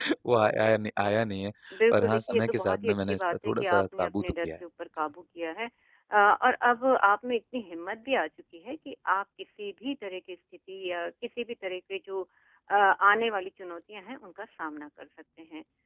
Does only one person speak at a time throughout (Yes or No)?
No